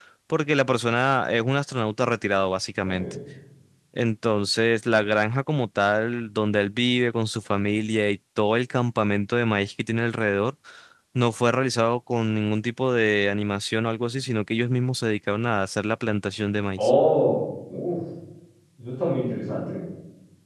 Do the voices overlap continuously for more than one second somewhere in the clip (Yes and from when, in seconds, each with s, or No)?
No